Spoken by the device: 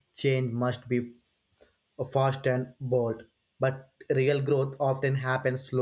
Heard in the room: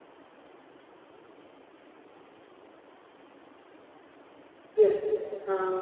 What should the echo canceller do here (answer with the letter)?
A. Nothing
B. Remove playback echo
A